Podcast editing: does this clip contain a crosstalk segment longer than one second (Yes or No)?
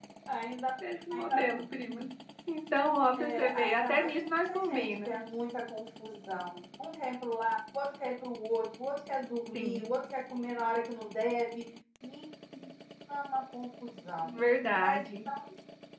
Yes